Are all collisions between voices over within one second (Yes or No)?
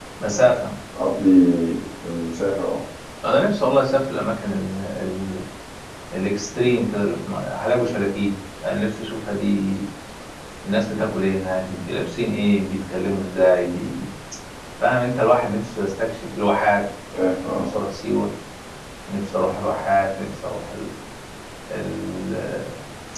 Yes